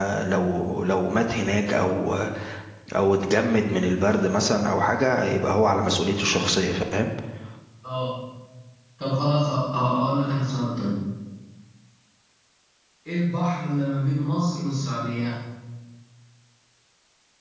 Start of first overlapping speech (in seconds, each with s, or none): none